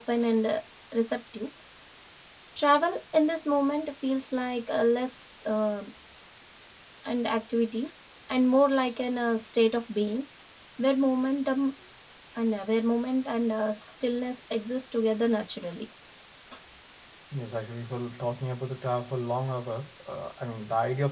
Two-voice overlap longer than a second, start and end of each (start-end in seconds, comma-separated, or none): none